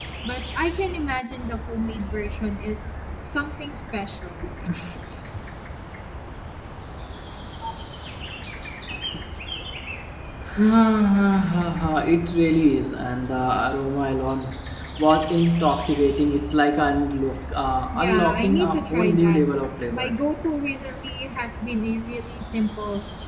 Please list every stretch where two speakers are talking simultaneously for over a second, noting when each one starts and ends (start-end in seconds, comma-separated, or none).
17.9-19.4